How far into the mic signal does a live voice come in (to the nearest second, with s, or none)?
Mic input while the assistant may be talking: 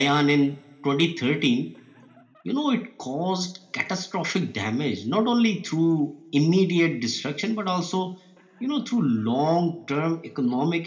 none